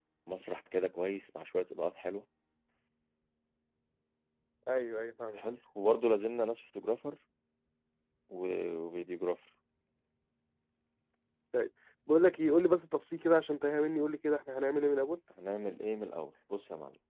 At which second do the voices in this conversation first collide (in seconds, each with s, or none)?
none